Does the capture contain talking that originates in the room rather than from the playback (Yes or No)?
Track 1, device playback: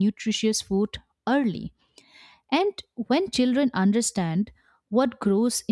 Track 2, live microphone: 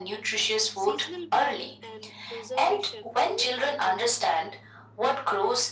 Yes